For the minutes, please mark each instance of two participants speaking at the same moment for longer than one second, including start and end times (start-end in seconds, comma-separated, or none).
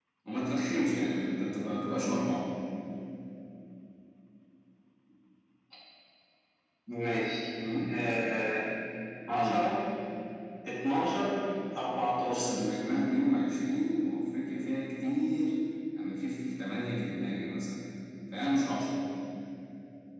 none